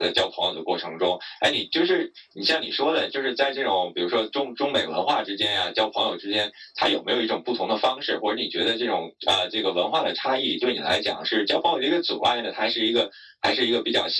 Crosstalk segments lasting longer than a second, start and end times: none

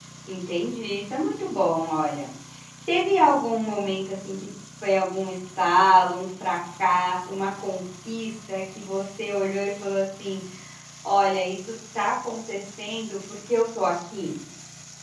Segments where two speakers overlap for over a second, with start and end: none

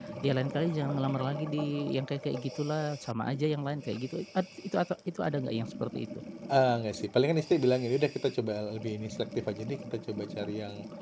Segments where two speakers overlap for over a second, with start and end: none

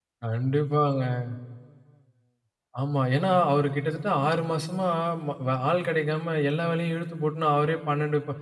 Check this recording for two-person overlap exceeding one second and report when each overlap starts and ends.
none

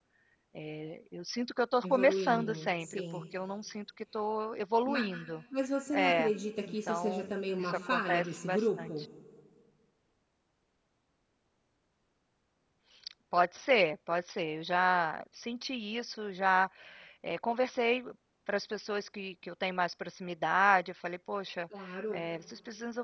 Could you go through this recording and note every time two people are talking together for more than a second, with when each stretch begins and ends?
1.8-3.2, 6.7-8.9

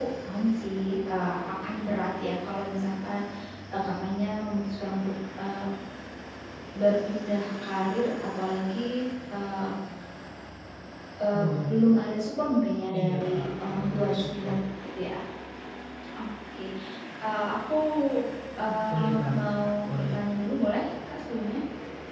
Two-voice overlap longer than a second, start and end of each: 13.0-14.6, 18.9-20.2

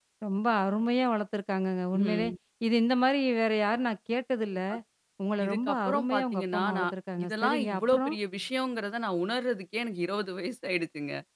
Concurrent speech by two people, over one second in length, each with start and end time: 5.5-8.1

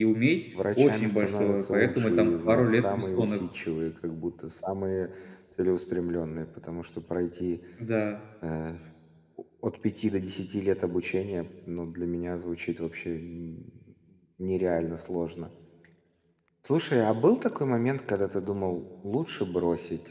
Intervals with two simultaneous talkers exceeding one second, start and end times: 0.8-3.4

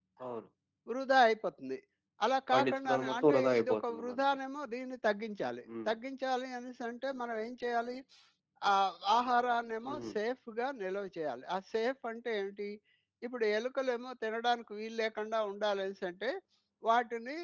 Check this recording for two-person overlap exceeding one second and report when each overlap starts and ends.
2.5-4.1

